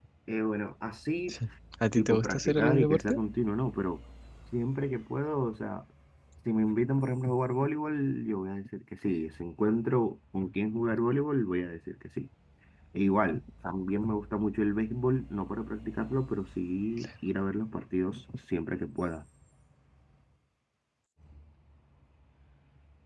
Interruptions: present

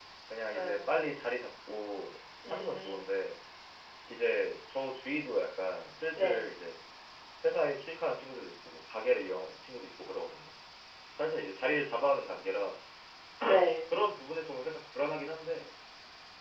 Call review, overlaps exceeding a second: none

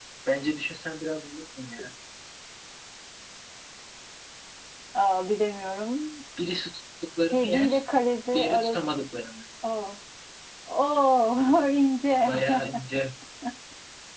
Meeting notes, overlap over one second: none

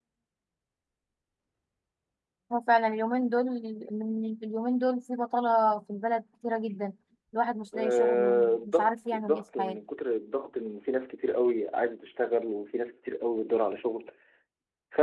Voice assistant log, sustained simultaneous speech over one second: present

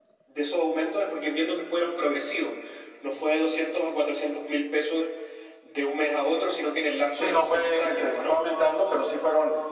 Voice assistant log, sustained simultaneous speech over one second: present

